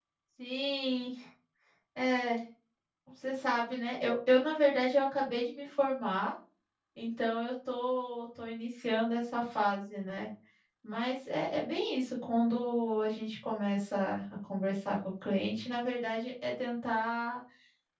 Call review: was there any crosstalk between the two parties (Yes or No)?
No